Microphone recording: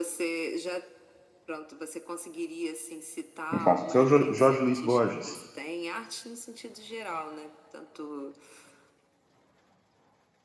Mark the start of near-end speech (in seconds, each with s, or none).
3.5 s